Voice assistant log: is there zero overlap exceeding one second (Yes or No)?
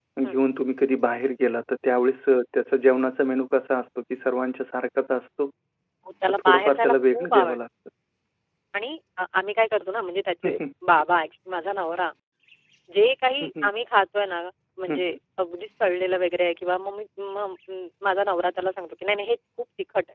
No